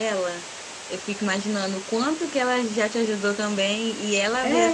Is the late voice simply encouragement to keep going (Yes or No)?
Yes